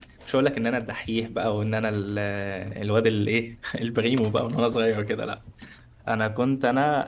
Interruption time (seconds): none

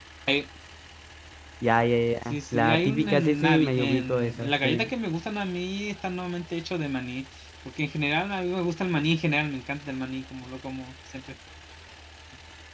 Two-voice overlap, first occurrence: 2 s

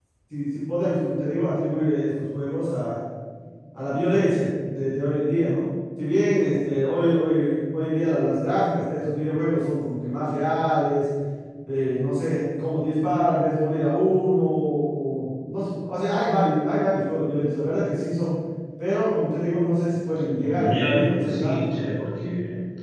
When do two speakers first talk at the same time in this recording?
20 s

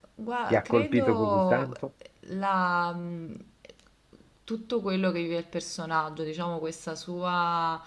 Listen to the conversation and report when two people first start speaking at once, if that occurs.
1 s

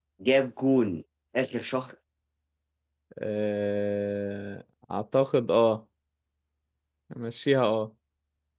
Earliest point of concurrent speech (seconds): none

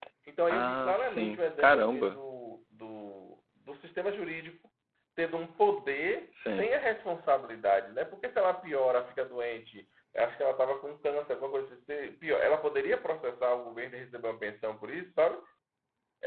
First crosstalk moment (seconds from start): 1 s

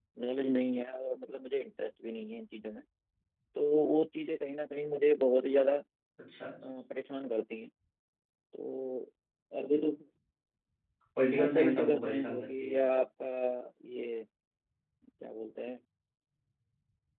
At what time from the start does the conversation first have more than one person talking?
11 s

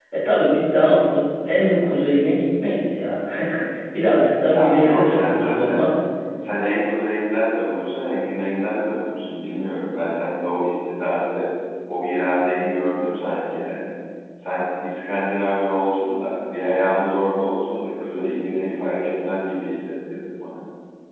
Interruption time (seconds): 5 s

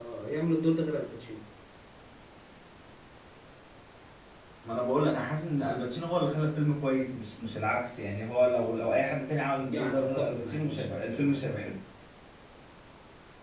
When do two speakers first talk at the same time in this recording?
10 s

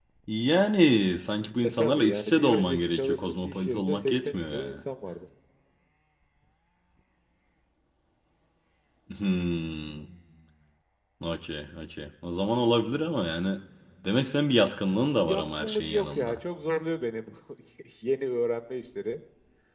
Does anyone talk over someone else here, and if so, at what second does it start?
2 s

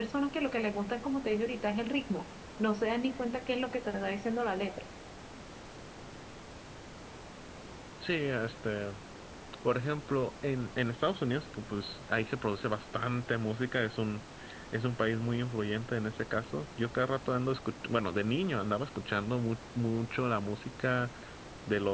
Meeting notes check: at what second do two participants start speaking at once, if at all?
none

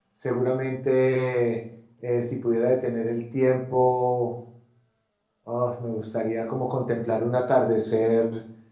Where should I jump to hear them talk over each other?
none

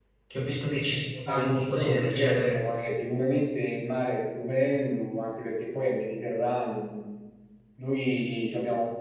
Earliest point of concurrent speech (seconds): 1 s

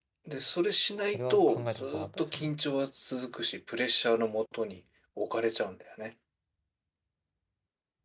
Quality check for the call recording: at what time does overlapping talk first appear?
1 s

